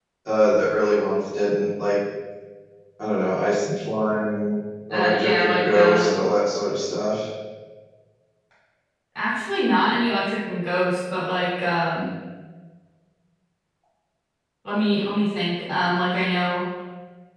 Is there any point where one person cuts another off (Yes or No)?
Yes